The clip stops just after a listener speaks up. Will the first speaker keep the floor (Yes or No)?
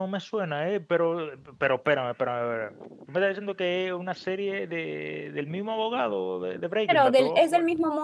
No